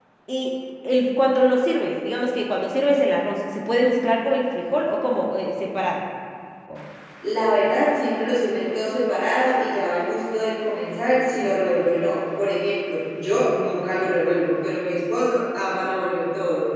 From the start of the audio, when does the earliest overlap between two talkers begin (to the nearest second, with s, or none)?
none